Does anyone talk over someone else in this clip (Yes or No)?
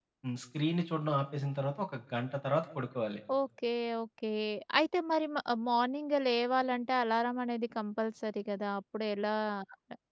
No